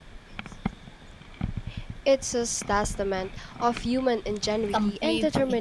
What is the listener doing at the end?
taking over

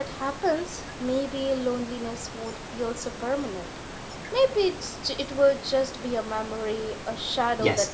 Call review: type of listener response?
taking over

